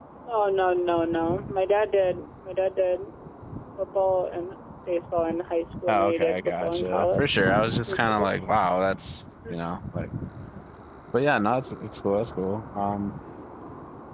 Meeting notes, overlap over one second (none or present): present